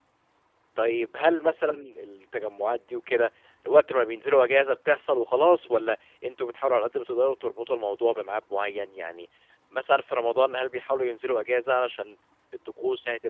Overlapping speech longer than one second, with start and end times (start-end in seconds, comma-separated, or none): none